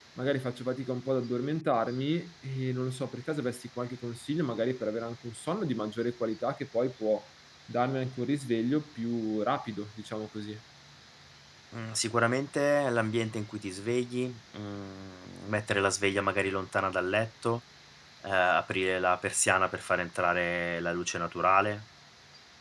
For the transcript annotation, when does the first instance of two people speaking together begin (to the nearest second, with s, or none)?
none